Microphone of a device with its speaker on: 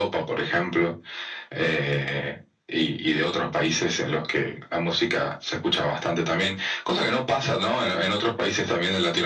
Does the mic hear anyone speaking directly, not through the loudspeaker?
No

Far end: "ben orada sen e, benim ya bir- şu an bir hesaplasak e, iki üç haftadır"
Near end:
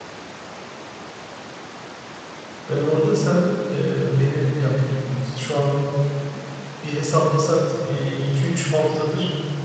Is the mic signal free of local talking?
Yes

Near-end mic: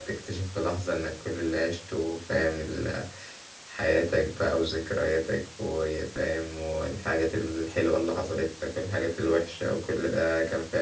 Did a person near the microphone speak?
Yes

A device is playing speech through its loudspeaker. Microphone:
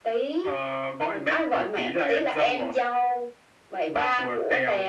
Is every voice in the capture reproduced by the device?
Yes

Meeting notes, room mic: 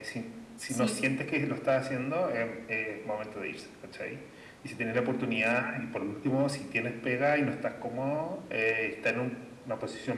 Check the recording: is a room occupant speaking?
Yes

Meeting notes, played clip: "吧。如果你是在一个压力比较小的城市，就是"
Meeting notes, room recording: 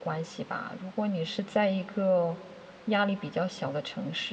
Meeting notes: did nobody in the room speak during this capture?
Yes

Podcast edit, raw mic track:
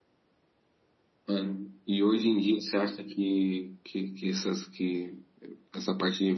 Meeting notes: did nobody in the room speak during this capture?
Yes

